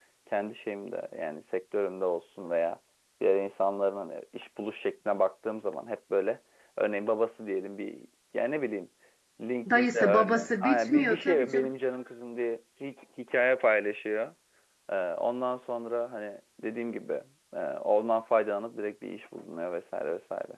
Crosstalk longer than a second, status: present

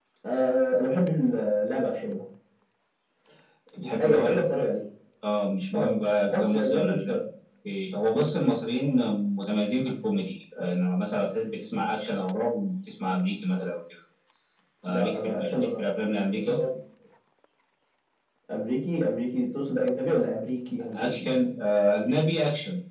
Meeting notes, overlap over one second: present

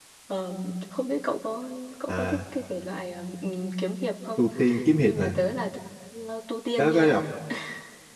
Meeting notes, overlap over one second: none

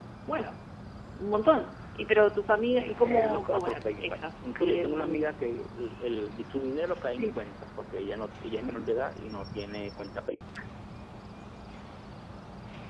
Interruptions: present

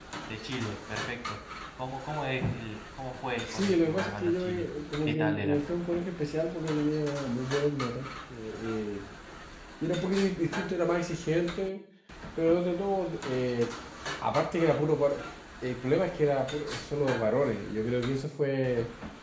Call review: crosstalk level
present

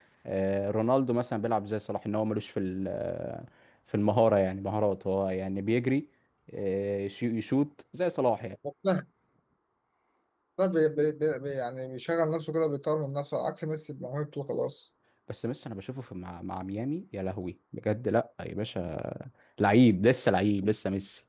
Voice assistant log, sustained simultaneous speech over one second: none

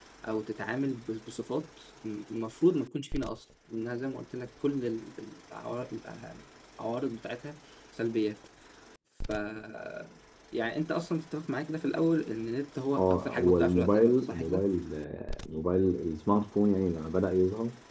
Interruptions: present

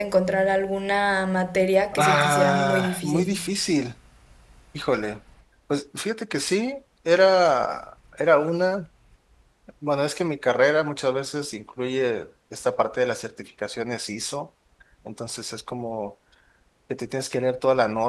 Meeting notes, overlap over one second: present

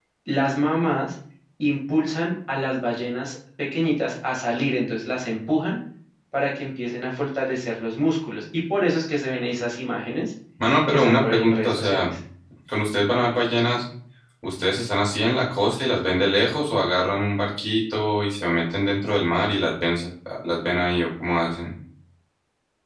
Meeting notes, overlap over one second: present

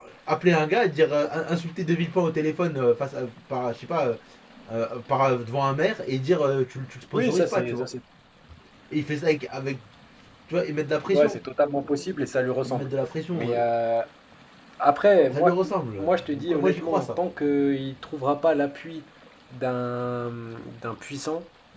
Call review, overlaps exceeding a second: present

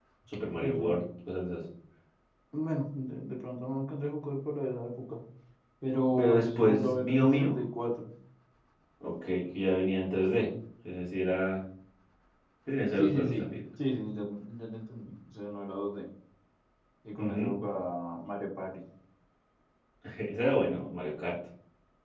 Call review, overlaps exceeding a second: present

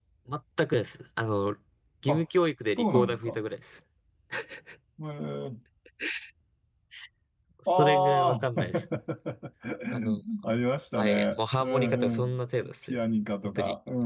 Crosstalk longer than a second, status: present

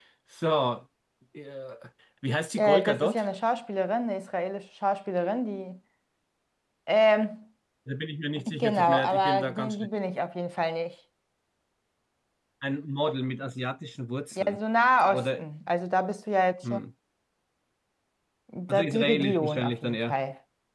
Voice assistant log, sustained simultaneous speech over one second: present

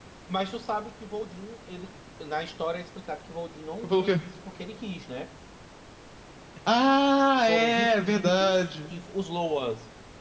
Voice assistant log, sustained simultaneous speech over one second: present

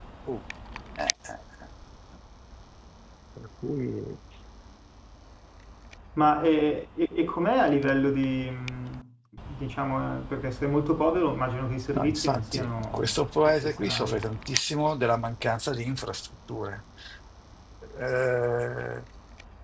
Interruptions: present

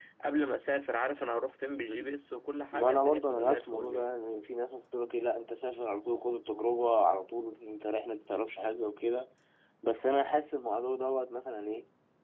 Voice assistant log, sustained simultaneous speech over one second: present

